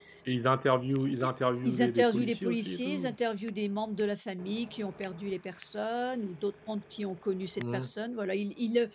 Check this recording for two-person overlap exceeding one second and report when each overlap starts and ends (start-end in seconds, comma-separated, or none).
1.6-3.1